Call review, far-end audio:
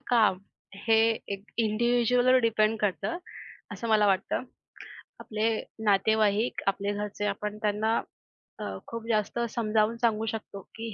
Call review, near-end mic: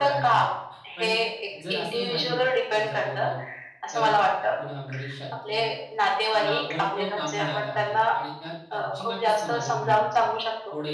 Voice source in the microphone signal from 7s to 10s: both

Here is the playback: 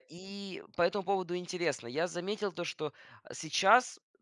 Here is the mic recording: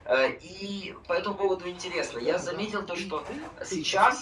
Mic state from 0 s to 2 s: echo only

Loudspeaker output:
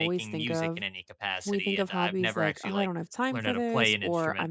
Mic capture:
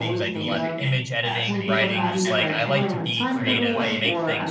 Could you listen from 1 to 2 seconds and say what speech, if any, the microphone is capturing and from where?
both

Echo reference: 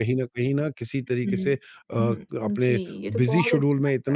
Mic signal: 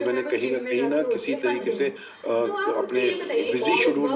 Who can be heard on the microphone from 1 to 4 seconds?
both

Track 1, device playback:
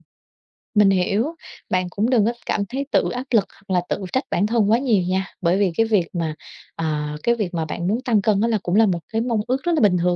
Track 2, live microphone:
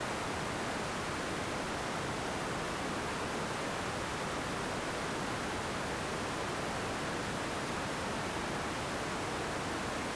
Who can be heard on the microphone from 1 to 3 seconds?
neither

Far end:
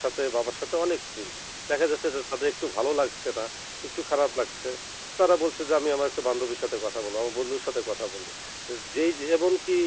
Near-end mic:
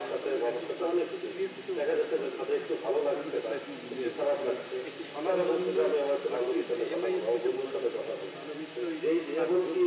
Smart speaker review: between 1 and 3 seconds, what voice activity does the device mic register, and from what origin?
both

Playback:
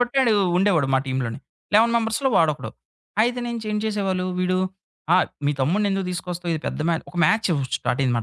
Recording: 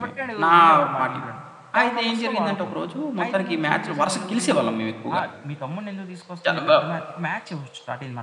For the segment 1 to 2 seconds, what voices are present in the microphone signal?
both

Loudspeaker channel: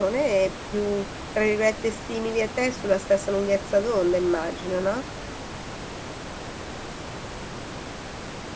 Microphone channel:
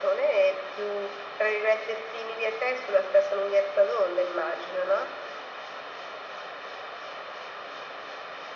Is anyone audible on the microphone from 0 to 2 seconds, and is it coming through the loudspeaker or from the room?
echo only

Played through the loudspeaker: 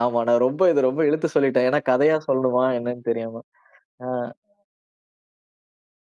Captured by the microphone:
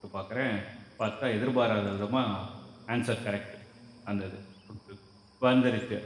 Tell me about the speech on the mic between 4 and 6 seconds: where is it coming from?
user only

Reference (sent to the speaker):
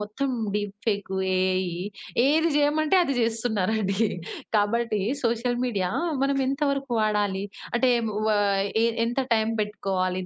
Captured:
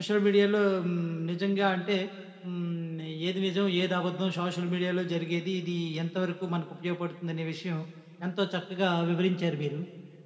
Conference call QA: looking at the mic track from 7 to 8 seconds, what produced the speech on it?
user only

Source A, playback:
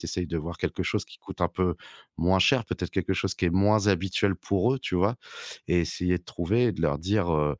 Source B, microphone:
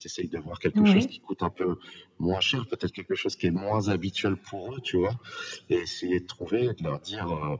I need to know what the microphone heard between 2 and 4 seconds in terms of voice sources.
echo only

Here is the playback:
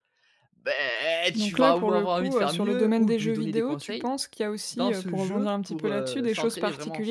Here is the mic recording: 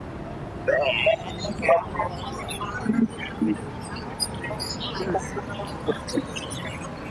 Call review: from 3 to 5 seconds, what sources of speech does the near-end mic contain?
echo only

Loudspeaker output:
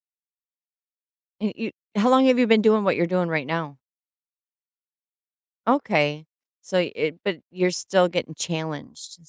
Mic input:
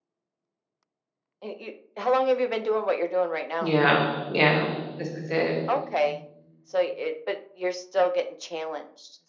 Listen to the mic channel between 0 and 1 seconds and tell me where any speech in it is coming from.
neither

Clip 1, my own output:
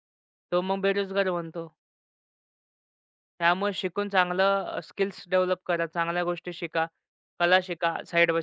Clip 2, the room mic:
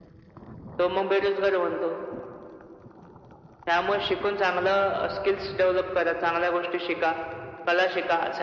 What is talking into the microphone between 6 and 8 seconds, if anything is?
echo only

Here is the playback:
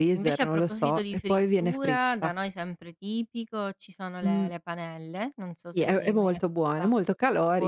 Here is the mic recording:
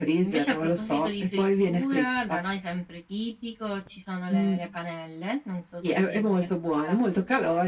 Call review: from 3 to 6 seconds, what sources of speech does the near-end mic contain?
echo only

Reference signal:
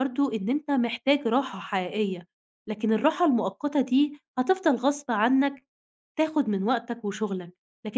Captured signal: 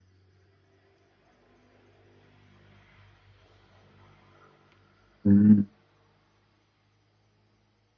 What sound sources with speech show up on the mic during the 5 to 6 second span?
user only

